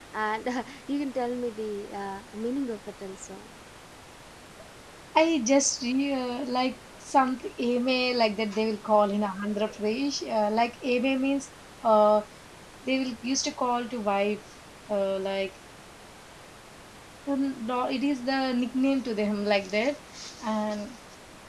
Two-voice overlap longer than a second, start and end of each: none

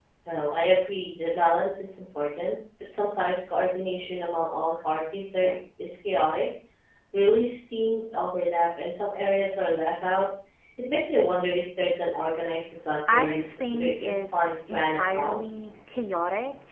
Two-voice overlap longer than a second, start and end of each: 13.1-15.4

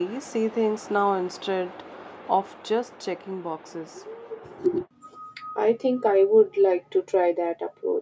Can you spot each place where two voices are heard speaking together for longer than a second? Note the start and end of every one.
none

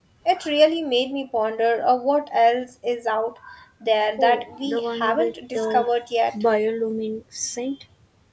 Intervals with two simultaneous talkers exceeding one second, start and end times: 4.2-5.8

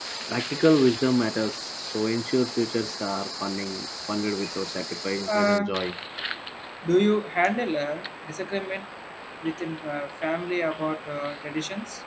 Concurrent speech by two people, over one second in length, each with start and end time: none

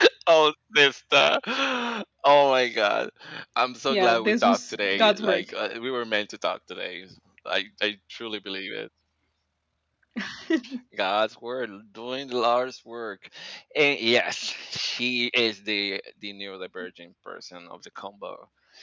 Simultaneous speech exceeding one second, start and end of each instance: 3.9-5.4

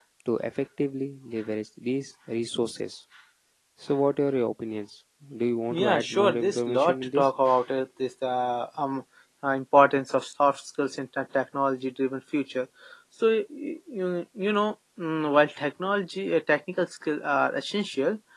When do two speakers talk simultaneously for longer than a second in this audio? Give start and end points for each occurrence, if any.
5.7-7.3

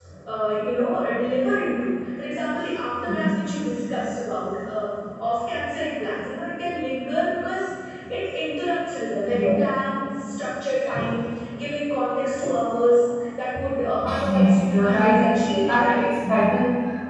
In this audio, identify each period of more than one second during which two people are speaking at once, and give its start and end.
14.2-16.0

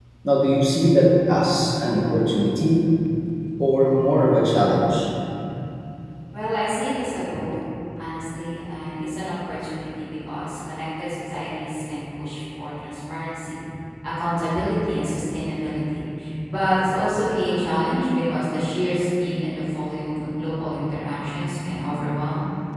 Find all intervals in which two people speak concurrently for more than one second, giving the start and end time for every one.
none

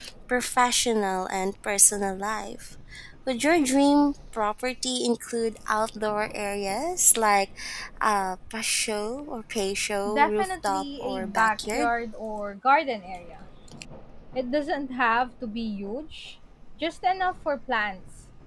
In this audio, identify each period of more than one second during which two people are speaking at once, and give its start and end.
10.1-11.9

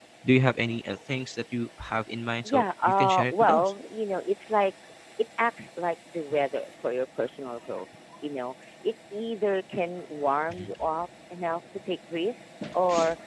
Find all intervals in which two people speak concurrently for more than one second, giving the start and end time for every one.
2.4-3.7

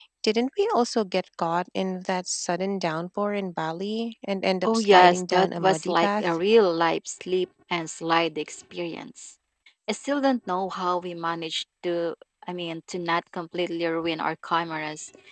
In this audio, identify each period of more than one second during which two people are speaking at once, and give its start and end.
4.7-6.2

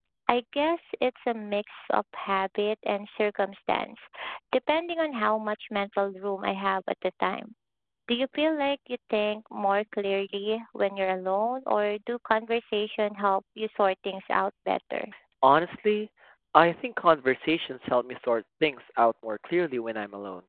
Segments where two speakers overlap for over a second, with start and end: none

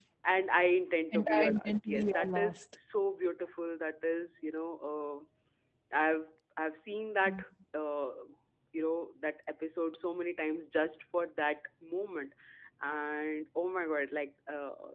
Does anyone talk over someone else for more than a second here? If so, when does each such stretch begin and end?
1.1-2.6

